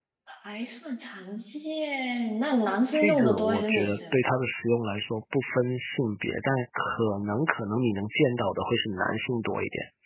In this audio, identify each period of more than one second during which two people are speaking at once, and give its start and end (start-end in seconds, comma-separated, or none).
2.9-4.2